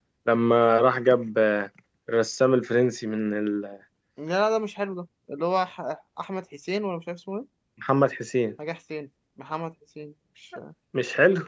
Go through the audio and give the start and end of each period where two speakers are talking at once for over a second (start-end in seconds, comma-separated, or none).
none